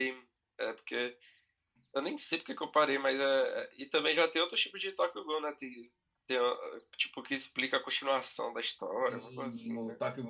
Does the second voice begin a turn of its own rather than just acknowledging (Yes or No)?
Yes